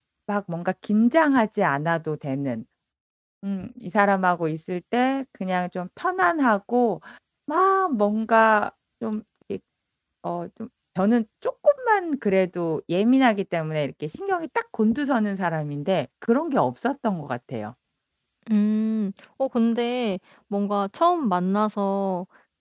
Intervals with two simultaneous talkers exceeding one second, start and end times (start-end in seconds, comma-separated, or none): none